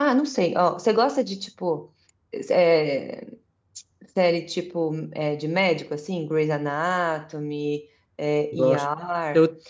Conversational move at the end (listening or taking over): taking over